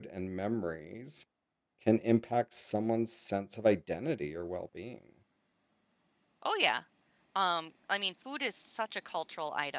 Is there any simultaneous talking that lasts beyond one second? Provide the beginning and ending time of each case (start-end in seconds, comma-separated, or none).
none